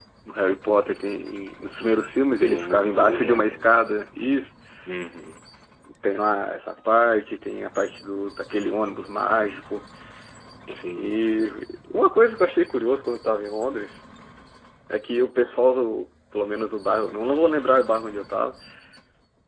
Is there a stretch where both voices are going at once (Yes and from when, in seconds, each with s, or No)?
Yes, from 2.4 s